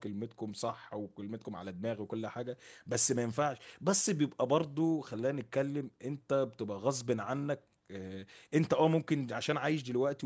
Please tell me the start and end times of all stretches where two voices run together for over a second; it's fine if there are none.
none

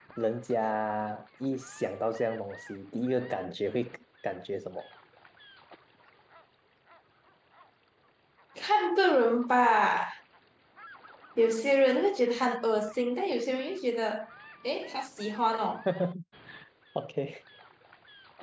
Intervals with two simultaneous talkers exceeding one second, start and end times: none

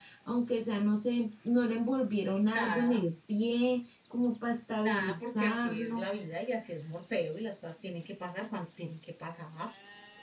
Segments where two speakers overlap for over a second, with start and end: 4.8-6.1

